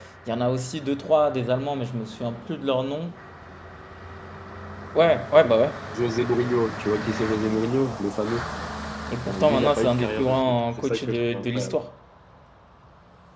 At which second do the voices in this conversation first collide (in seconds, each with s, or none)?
9.2 s